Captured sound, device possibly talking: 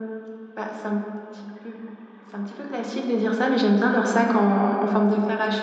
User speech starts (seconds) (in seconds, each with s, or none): none